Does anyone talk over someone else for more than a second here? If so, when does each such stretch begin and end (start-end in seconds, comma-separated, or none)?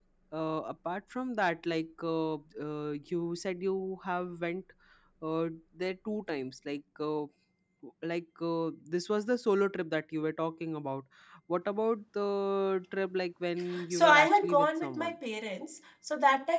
13.9-15.2